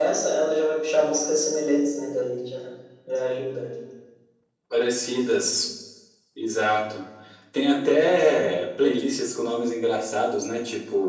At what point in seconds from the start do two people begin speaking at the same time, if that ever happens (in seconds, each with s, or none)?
none